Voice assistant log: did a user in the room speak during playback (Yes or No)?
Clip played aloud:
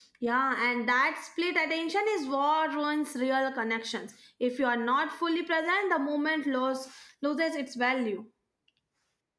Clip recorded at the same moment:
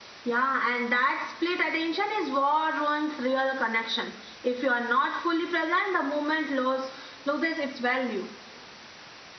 No